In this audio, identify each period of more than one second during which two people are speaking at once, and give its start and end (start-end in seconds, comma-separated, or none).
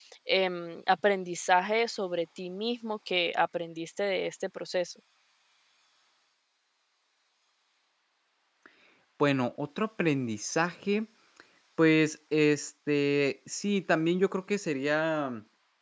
none